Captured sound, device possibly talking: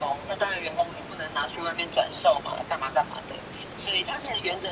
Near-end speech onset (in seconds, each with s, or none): none